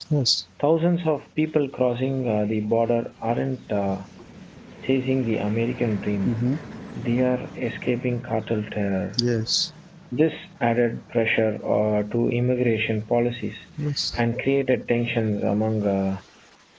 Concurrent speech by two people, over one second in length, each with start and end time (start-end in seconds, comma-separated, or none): none